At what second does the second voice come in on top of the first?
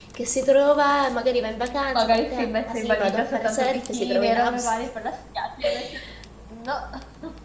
1.9 s

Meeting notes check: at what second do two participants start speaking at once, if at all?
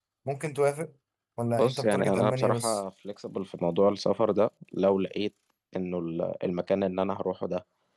1.5 s

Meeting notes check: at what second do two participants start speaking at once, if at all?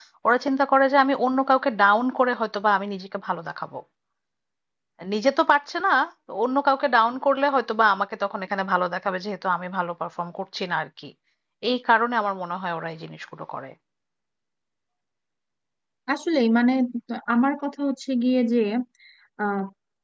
none

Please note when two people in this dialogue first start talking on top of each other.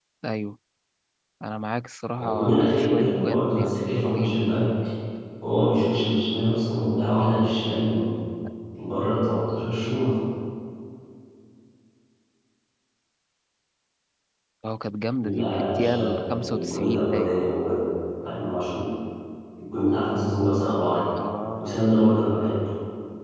2.2 s

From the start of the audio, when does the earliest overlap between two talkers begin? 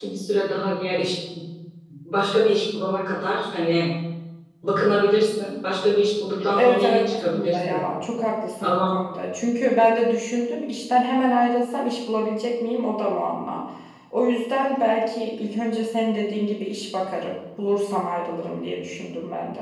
6.4 s

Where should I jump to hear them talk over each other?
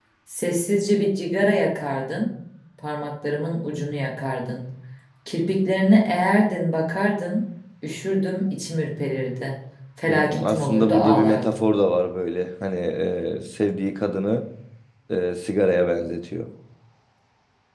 10.1 s

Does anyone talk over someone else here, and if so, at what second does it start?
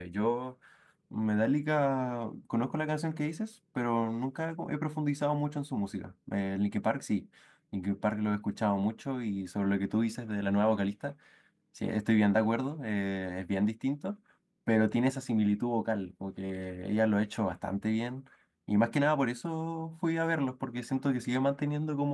none

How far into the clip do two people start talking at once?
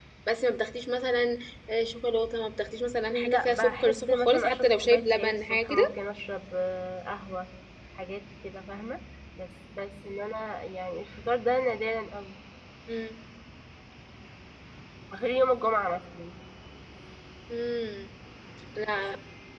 3.1 s

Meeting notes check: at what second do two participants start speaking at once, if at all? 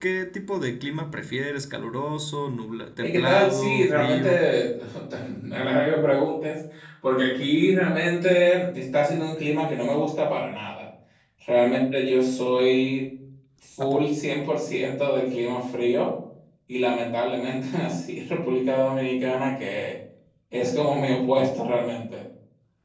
3.0 s

